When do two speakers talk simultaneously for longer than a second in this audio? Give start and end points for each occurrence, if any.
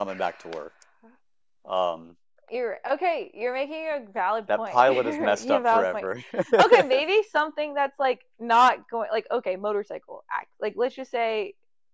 4.6-6.1

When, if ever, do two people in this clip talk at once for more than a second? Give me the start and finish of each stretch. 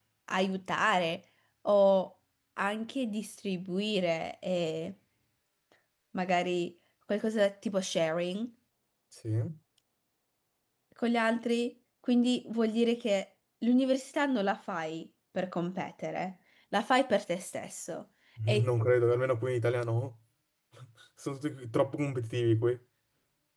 none

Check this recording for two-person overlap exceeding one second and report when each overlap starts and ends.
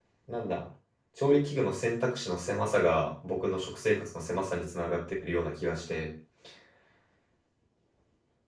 none

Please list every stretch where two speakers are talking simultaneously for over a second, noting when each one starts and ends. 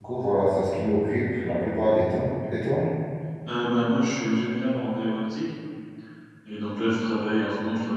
none

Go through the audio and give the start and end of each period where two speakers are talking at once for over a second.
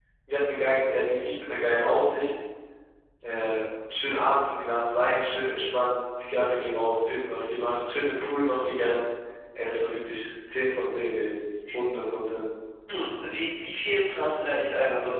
none

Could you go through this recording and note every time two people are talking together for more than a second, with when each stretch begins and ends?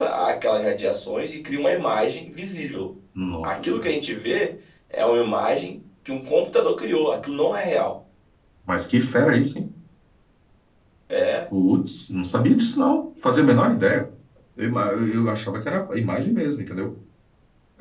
none

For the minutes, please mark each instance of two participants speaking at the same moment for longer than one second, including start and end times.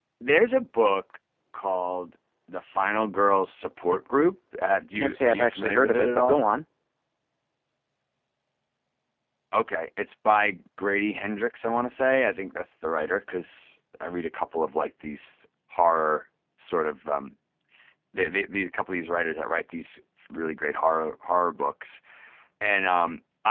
5.0-6.4

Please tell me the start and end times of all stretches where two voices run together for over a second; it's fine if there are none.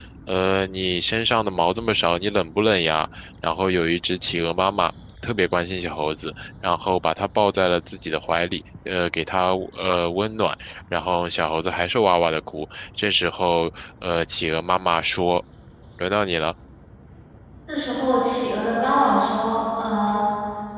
none

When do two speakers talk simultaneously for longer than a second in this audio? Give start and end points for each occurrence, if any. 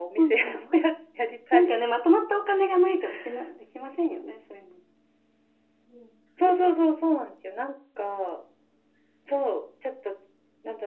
none

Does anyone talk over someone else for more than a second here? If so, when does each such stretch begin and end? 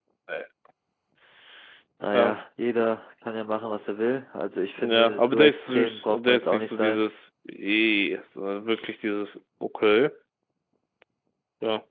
4.8-7.0

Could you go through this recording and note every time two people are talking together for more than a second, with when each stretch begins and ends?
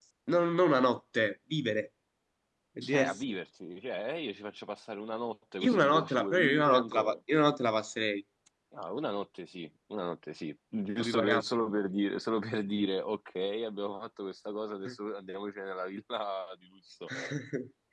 5.7-7.1

